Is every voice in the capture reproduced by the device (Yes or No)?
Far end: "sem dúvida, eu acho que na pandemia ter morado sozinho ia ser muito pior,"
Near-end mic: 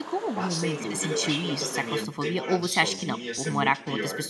No